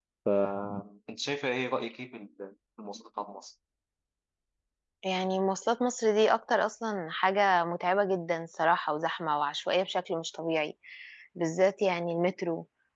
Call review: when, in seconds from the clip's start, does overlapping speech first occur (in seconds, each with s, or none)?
none